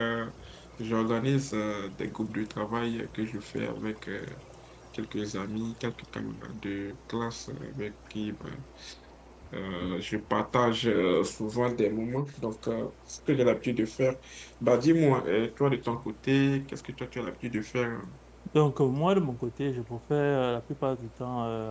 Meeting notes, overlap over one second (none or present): none